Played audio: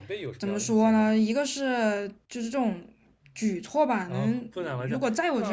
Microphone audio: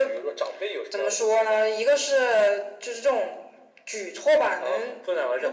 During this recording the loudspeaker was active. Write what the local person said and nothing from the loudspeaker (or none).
none